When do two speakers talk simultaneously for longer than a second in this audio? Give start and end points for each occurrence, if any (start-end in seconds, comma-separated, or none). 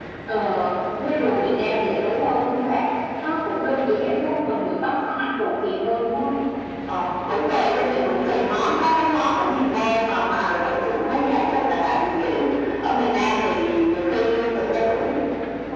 none